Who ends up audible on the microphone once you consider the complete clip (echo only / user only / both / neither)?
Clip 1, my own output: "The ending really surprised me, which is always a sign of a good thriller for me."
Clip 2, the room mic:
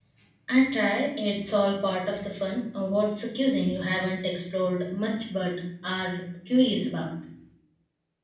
user only